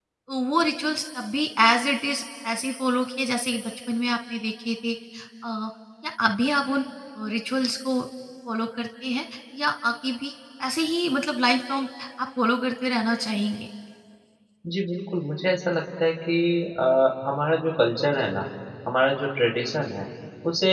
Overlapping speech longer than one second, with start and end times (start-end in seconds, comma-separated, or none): none